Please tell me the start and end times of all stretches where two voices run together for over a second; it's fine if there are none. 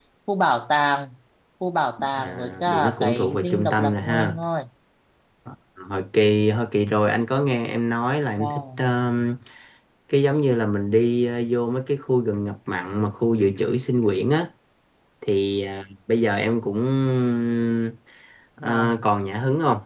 2.1-4.4

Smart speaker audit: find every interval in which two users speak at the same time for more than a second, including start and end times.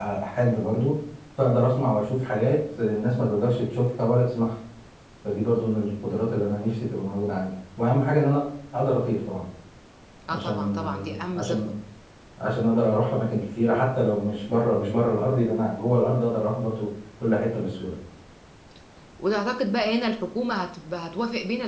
10.3-11.7

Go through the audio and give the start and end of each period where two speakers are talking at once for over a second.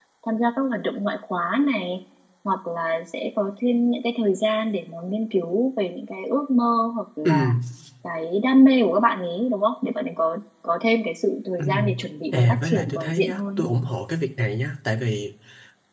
12.3-13.7

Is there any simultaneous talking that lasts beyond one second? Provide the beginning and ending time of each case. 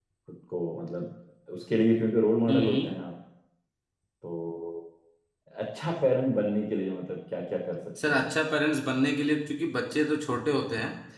none

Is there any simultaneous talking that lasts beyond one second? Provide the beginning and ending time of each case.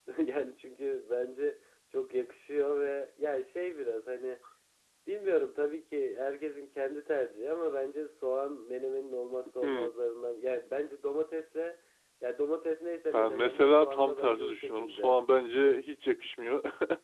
13.1-15.2

